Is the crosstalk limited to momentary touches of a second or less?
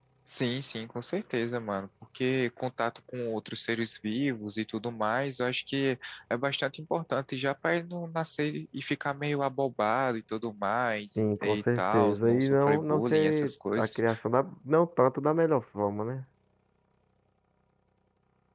No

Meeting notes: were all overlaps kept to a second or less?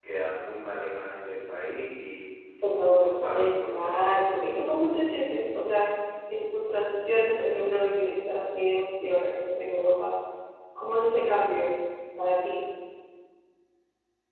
No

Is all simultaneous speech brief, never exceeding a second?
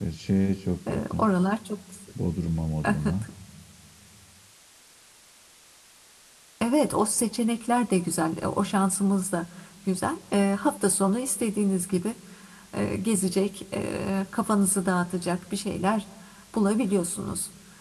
Yes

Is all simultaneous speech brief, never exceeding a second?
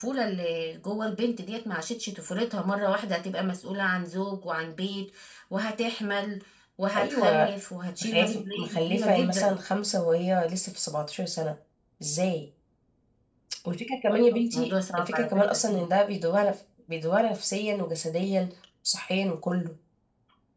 No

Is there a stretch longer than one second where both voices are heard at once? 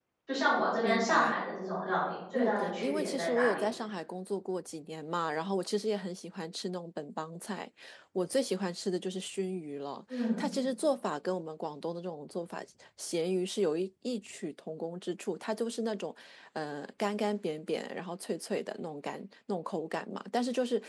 Yes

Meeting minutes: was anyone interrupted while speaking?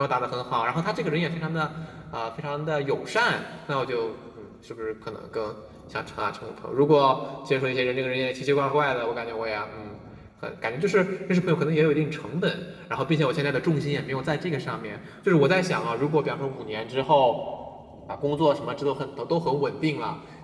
No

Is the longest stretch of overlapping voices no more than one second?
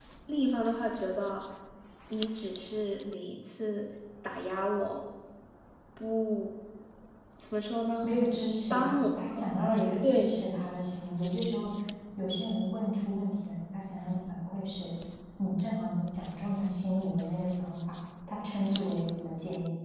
Yes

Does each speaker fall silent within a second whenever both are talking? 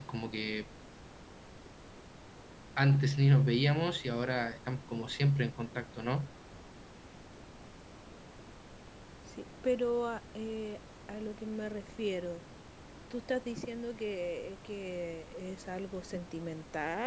Yes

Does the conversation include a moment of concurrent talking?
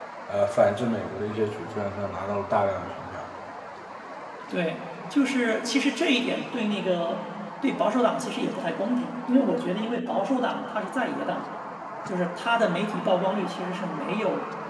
No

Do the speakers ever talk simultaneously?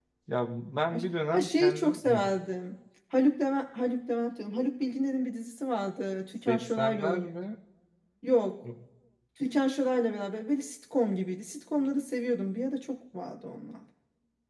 Yes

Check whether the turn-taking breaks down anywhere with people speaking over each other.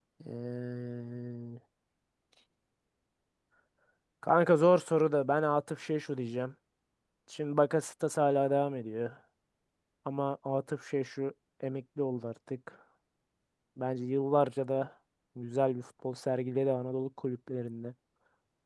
No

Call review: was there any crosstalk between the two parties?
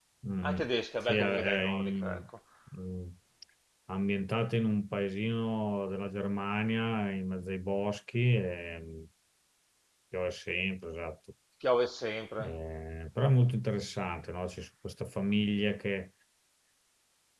Yes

